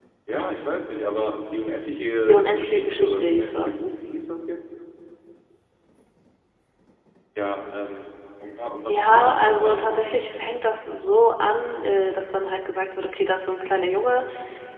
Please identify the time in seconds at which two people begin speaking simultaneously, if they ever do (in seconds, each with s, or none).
2.3 s